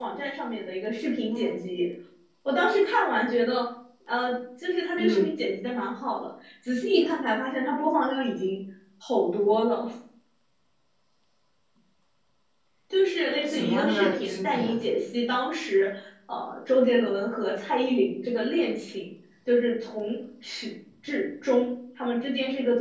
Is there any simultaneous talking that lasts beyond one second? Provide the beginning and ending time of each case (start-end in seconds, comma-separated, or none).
13.4-14.6